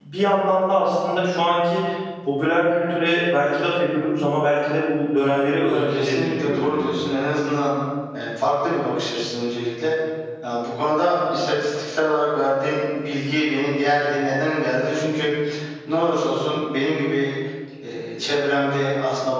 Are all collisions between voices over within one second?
No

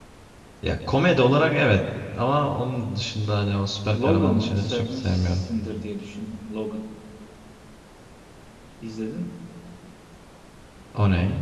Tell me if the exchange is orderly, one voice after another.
No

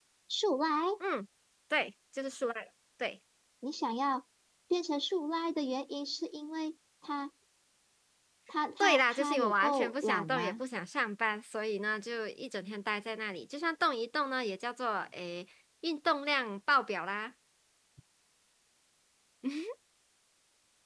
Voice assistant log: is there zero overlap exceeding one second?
No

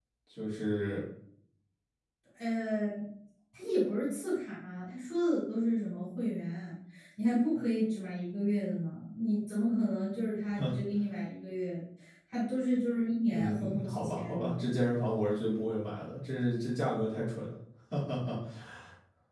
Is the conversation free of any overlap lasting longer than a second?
No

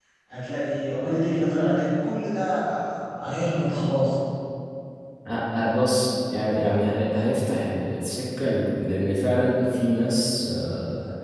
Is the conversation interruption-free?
Yes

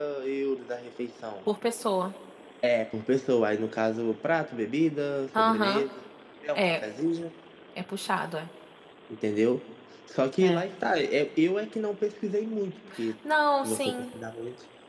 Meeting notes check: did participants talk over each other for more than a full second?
No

